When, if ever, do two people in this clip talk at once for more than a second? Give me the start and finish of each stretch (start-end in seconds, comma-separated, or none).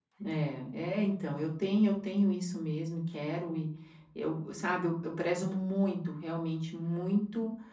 none